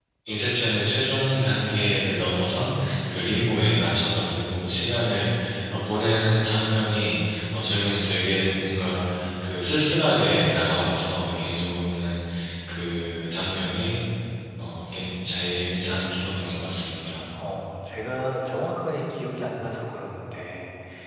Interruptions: none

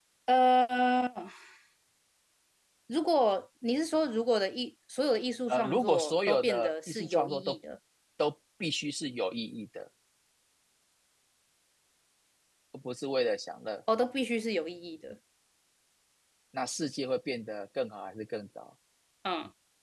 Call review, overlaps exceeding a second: present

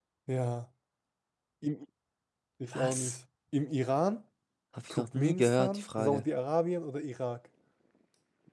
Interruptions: present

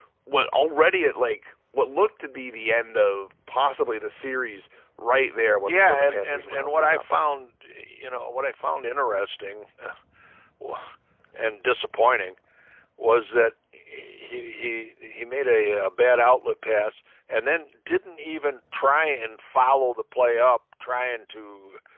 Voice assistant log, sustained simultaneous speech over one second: present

